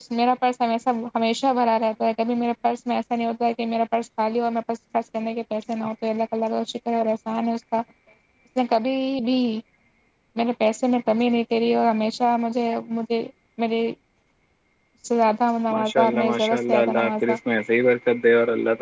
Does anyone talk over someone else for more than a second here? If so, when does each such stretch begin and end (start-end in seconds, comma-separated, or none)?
15.7-17.4